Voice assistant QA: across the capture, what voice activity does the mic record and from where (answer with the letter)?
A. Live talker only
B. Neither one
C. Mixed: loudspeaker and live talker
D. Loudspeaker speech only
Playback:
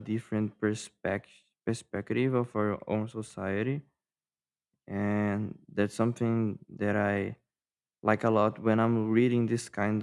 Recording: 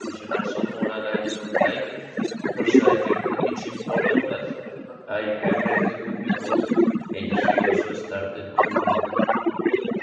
C